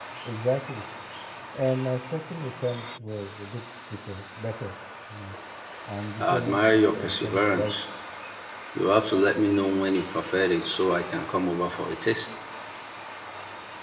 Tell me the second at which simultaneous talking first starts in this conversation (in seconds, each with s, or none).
6.2 s